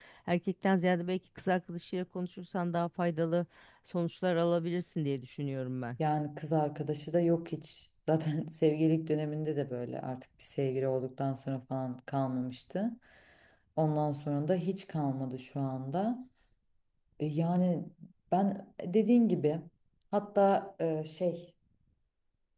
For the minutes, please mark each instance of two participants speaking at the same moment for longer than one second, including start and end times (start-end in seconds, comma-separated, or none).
none